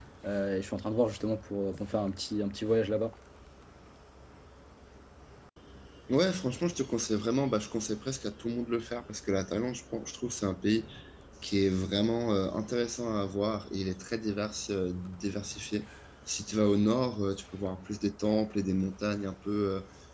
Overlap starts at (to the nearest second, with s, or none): none